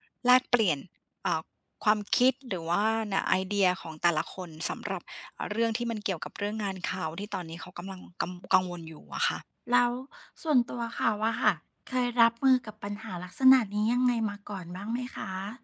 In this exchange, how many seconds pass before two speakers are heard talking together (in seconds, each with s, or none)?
none